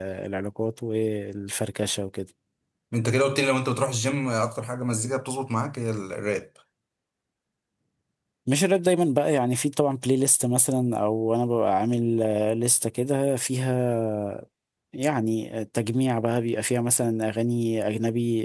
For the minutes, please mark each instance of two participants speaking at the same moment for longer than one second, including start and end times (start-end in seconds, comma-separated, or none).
none